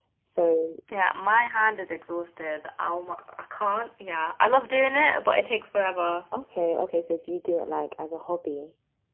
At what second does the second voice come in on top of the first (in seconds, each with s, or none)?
none